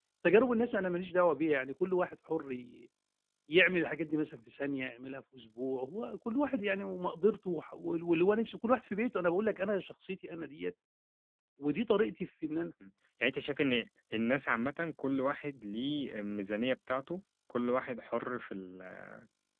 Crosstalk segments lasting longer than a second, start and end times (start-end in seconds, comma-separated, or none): none